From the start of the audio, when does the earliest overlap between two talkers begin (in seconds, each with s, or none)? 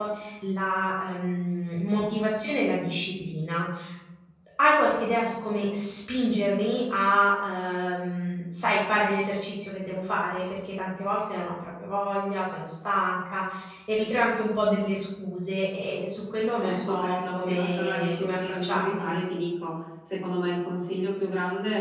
16.6 s